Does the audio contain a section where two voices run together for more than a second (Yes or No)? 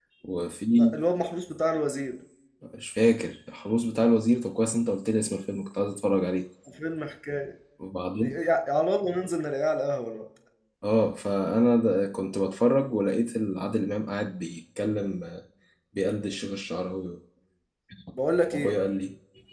No